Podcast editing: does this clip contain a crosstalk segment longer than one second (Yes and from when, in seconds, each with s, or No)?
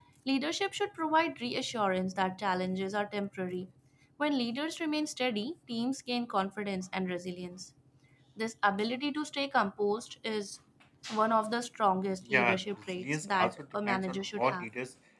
Yes, from 12.2 s